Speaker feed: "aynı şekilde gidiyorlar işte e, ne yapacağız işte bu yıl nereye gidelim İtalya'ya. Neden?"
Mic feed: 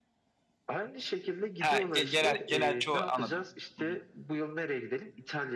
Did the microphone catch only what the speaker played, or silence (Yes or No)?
No